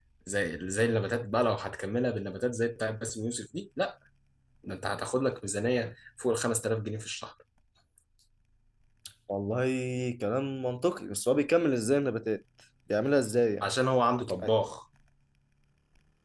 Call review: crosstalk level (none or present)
none